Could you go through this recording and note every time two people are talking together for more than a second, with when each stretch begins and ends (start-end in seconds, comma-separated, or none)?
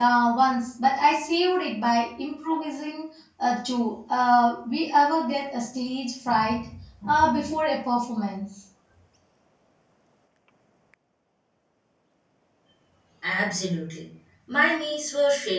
none